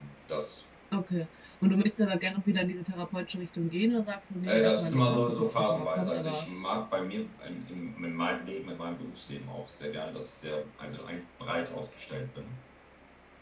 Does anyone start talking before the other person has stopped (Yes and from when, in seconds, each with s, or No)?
Yes, from 4.5 s